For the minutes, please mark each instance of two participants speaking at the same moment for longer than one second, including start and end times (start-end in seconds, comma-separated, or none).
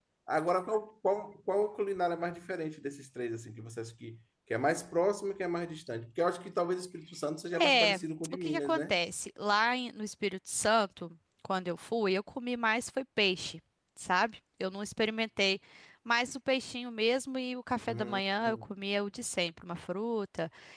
7.6-9.0